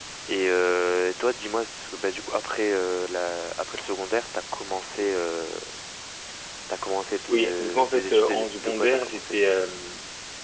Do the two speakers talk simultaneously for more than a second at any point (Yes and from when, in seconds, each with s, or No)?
Yes, from 7.3 s